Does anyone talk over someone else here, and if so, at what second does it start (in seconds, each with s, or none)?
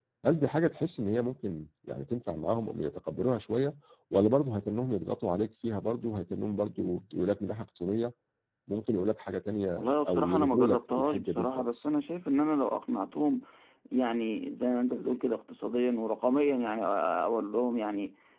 9.8 s